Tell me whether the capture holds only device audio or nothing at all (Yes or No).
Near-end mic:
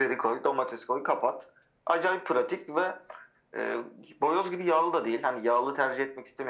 Yes